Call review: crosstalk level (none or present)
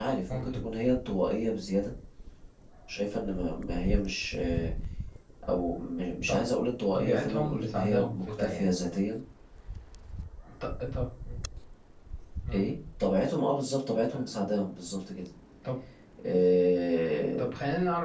present